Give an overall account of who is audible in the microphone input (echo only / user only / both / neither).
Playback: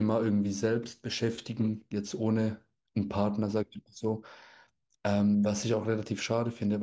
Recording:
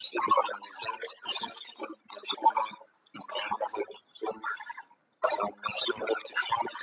echo only